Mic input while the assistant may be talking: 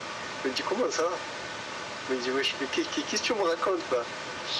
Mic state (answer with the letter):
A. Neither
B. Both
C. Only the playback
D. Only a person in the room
C